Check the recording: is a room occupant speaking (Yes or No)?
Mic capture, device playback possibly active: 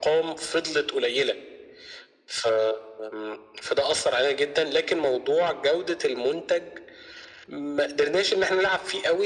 No